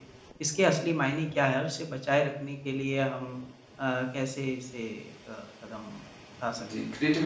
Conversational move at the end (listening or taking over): taking over